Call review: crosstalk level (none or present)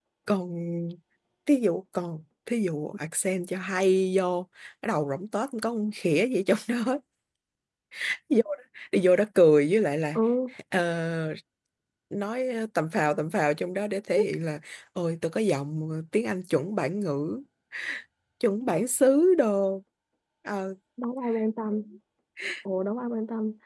none